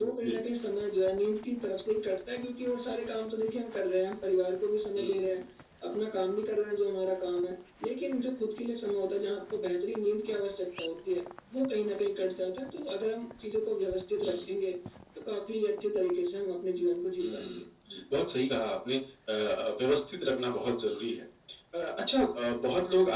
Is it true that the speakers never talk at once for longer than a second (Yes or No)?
Yes